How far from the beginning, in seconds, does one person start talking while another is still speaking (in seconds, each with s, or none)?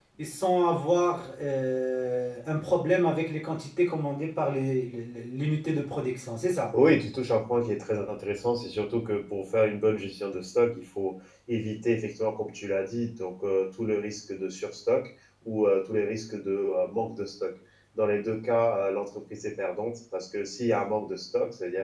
none